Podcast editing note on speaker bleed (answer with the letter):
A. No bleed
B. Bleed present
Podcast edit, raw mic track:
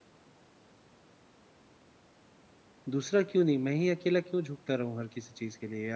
A